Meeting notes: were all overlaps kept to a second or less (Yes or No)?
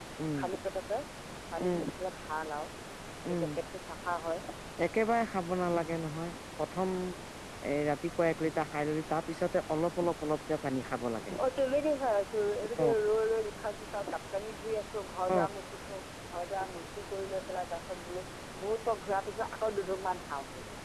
Yes